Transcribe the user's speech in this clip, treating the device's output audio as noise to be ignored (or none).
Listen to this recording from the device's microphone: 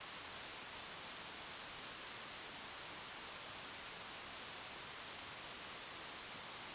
none